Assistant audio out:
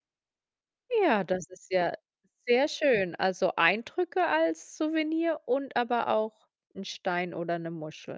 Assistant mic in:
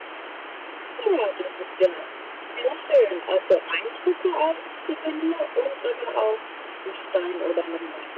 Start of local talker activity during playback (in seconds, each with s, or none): none